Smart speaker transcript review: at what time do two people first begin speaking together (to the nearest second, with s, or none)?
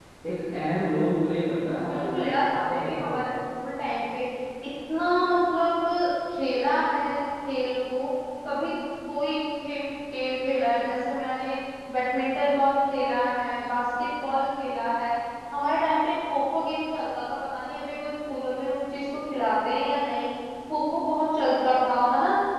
2 s